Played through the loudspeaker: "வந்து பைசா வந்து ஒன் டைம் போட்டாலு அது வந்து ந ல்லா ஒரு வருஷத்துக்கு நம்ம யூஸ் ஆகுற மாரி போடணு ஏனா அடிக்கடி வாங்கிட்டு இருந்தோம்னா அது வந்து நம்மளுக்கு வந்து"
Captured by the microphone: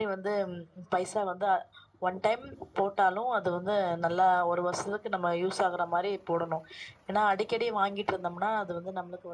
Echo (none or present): present